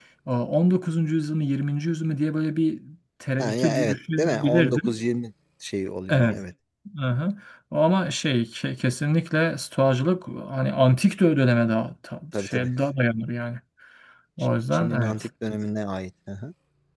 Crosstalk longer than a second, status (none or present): present